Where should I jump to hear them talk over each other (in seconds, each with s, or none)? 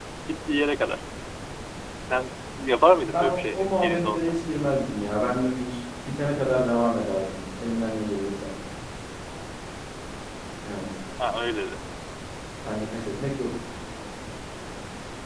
3.0 s